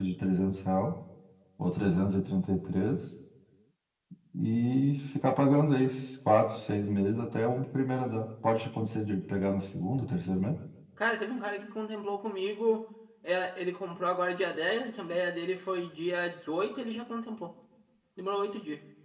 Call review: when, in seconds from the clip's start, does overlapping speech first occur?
none

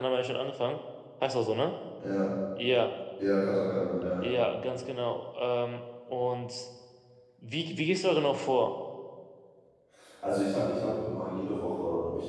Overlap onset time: none

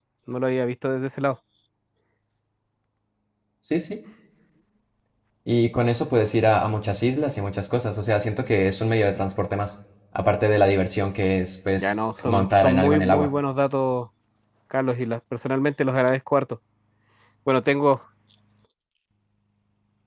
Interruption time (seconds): 11.8 s

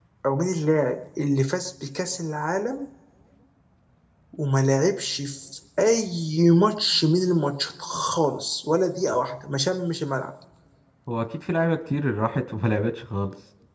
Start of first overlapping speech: none

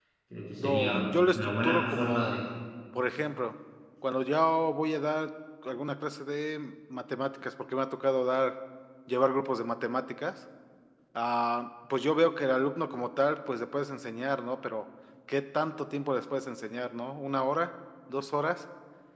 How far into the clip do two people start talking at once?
0.6 s

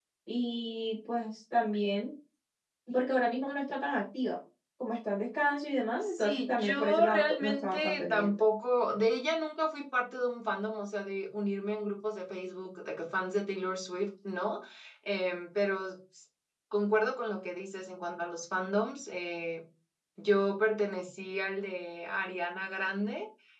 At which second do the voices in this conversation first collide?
6.0 s

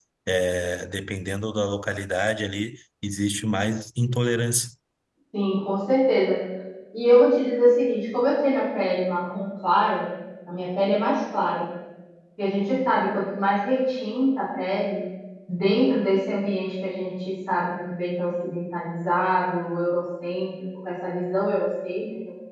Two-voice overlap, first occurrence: none

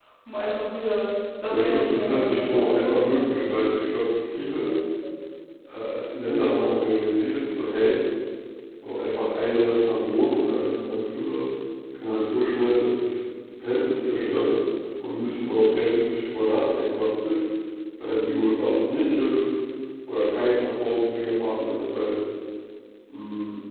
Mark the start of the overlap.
1.5 s

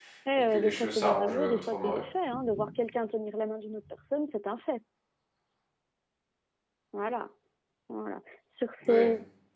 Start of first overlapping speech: 0.5 s

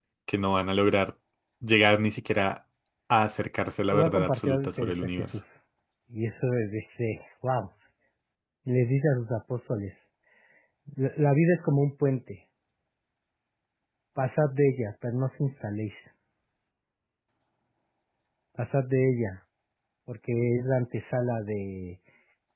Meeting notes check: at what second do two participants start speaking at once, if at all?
3.9 s

